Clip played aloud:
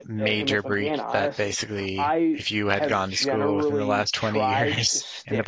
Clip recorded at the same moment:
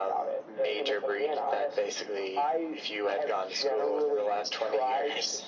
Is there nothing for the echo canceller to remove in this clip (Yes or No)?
No